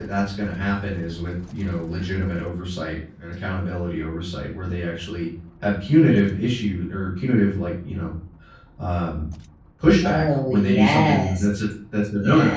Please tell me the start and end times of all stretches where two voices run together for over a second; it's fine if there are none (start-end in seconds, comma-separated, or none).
10.0-11.4